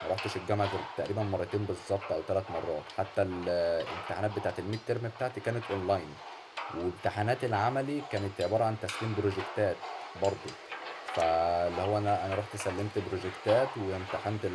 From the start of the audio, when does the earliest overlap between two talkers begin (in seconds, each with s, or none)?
none